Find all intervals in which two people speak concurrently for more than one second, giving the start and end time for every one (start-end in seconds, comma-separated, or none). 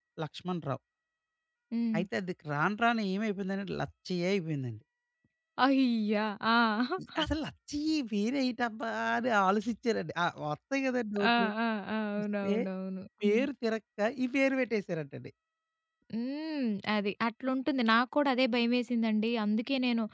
none